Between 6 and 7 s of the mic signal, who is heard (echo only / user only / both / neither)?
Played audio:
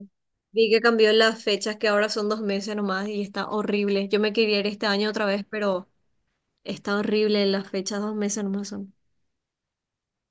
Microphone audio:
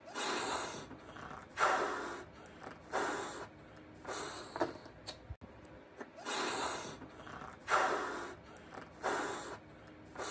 neither